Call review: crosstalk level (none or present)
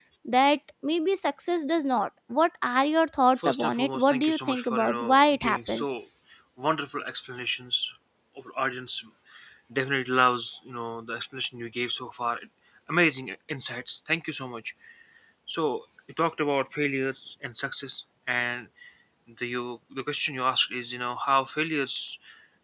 present